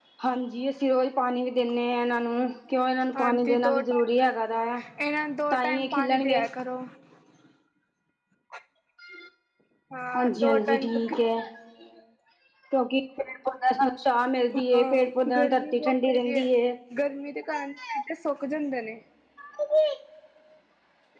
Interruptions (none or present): present